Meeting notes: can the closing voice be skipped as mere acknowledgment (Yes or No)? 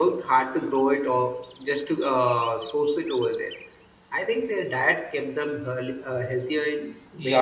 No